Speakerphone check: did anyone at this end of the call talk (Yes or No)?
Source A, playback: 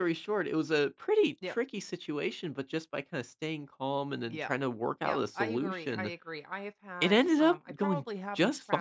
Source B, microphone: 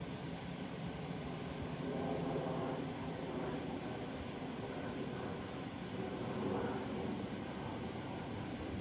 No